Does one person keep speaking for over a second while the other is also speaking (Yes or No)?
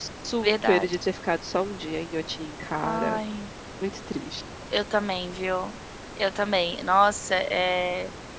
No